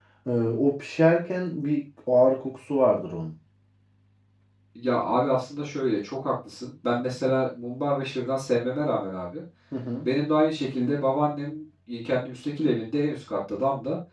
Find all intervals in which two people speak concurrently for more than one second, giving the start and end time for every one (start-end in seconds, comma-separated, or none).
none